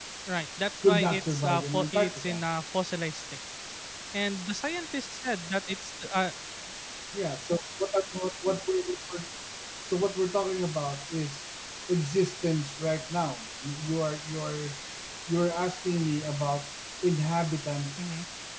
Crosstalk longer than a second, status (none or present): present